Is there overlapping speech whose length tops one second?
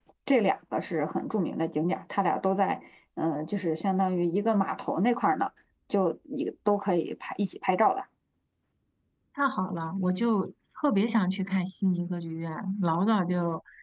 No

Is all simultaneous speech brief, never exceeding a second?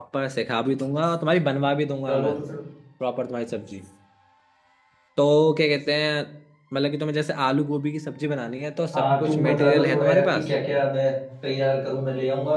No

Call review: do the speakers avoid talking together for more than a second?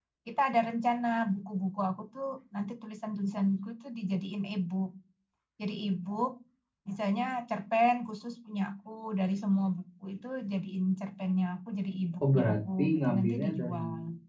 No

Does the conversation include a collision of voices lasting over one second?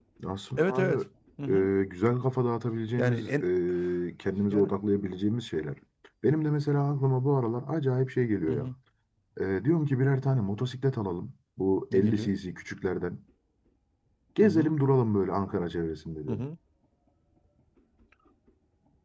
No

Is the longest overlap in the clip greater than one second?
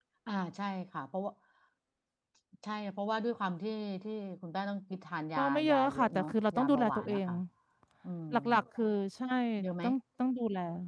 Yes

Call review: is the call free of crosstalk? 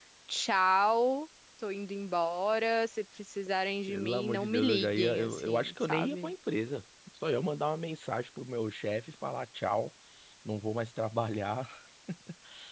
No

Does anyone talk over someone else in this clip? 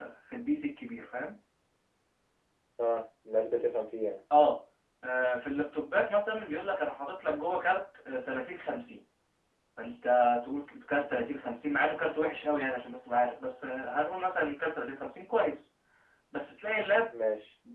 No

